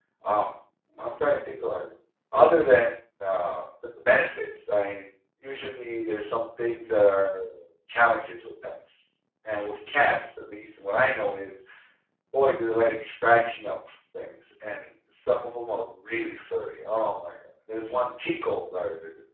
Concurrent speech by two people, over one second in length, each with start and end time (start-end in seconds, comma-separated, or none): none